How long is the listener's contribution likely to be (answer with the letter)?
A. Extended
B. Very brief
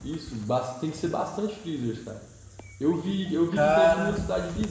B